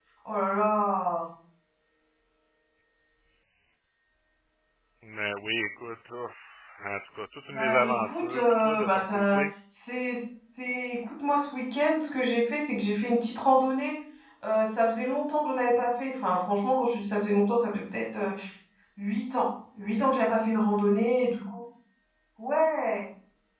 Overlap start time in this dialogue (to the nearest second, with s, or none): 8 s